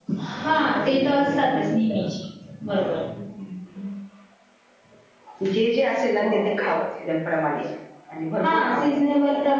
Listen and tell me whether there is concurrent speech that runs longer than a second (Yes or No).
Yes